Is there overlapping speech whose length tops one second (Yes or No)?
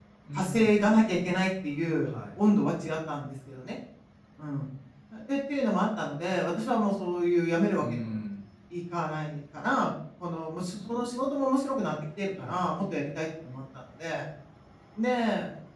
No